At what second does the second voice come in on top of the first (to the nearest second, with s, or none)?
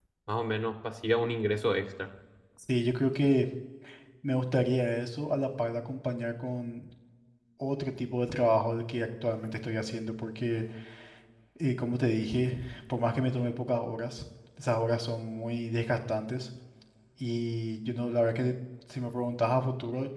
none